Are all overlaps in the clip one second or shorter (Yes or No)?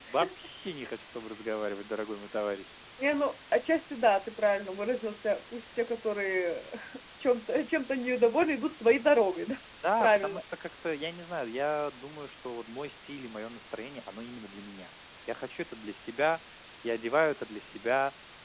Yes